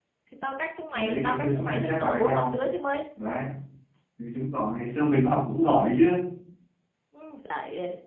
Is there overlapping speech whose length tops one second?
Yes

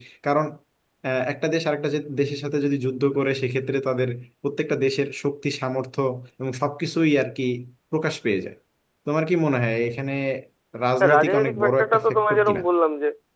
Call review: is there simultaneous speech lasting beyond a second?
Yes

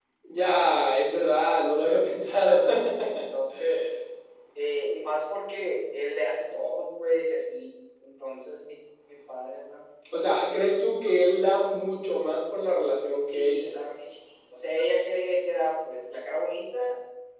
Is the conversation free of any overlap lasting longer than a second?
Yes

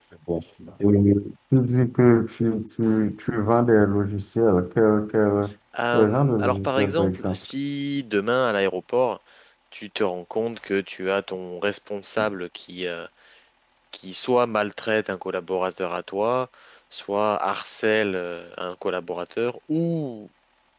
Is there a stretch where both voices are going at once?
Yes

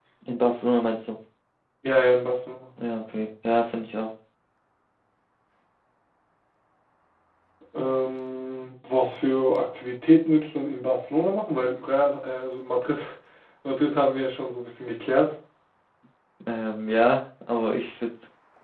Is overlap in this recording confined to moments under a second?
Yes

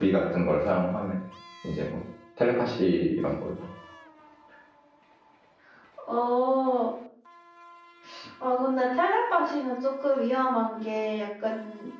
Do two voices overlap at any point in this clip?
No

